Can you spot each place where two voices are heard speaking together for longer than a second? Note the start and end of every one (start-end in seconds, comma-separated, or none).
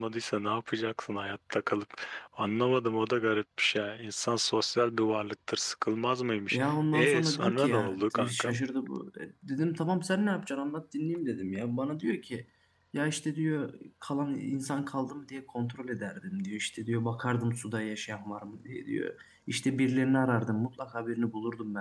6.5-8.6